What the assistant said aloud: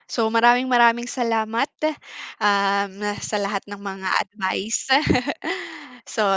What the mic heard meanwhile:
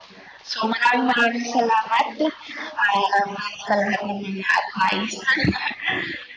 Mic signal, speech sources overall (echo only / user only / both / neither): echo only